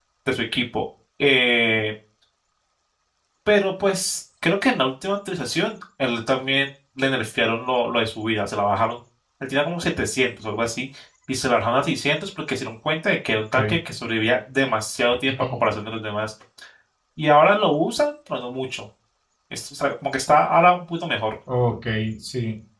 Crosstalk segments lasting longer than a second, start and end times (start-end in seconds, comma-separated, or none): none